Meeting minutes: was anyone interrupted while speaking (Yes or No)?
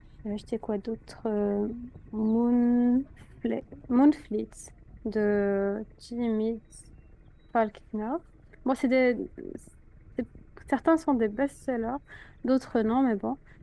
No